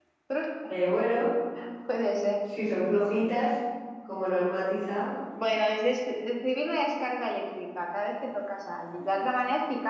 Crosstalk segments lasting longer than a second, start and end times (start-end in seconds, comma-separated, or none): none